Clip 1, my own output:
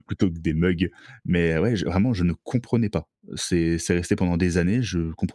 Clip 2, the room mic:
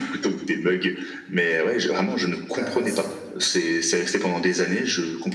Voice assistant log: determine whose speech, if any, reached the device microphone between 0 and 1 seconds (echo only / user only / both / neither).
echo only